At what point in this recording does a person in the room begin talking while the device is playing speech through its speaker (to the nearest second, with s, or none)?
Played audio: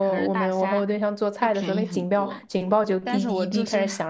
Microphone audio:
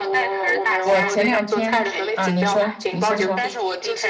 1 s